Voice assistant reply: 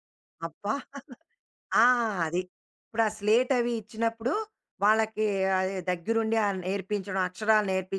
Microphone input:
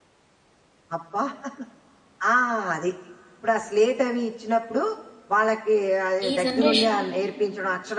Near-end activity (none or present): present